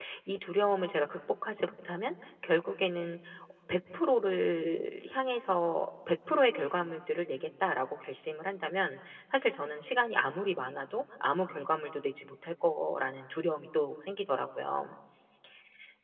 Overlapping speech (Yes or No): No